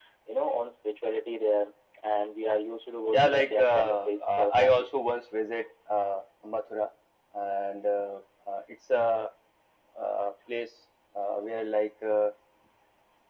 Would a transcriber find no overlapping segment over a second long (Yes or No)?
No